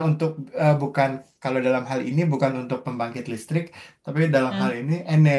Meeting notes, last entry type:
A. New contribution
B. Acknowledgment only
B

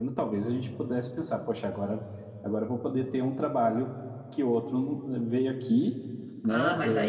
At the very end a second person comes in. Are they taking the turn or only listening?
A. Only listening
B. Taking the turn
B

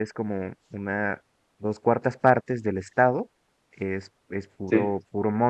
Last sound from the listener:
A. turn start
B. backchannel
B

